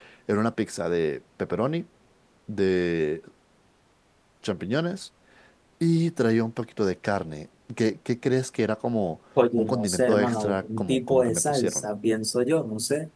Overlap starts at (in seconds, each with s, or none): 9.6 s